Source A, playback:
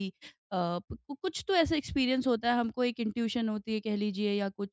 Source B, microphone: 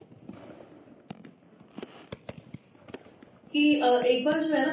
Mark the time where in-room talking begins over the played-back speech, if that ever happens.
3.5 s

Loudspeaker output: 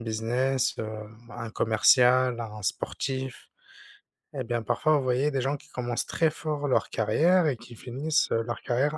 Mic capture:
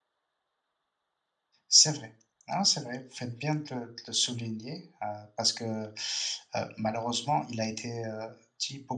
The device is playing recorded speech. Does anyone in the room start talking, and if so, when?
1.7 s

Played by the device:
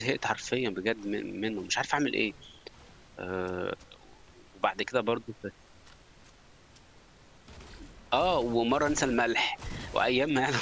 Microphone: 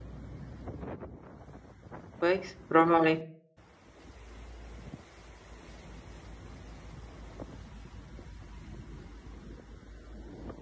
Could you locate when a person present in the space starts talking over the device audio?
2.2 s

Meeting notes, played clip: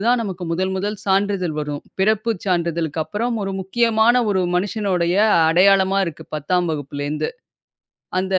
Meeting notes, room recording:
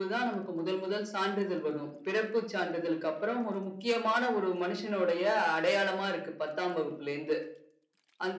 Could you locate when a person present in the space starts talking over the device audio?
none

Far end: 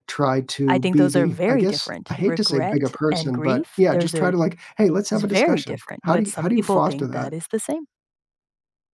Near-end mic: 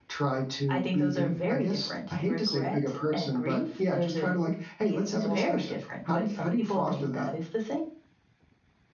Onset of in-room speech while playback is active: 4.8 s

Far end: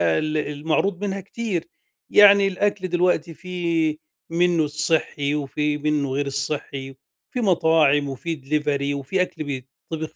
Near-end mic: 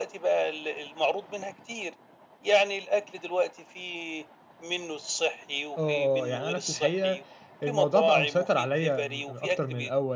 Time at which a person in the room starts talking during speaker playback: 5.8 s

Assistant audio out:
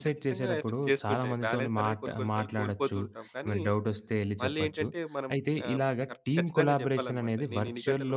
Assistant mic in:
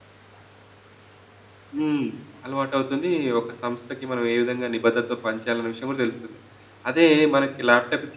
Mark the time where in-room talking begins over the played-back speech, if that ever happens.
1.8 s

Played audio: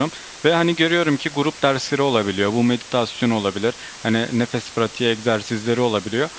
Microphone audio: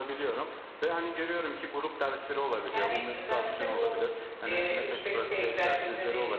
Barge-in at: 2.7 s

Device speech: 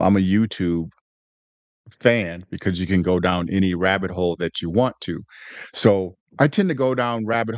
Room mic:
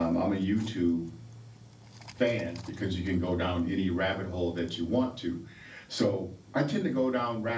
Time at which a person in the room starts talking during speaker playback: none

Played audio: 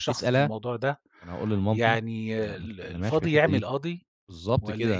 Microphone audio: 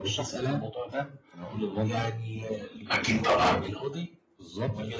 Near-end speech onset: 2.9 s

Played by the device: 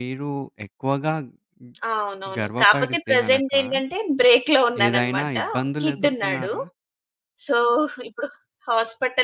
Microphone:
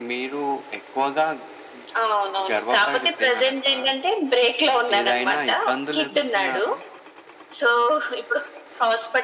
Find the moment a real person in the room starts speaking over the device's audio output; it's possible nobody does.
none

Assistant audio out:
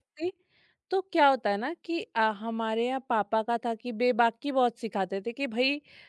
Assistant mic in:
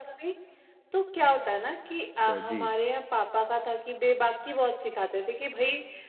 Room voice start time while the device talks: 2.1 s

